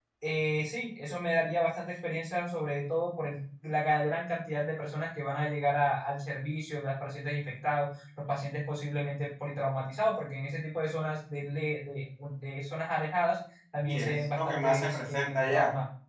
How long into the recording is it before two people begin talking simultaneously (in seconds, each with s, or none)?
13.9 s